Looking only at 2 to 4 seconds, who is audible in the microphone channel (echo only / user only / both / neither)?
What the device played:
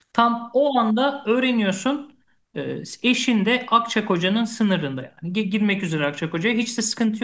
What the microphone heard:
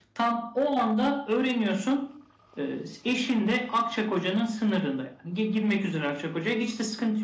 echo only